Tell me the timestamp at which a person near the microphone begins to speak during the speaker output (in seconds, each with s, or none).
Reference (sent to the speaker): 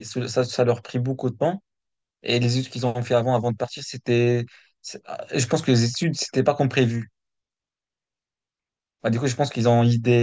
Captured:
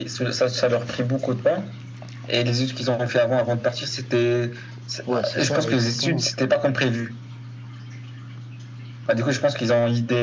5.1 s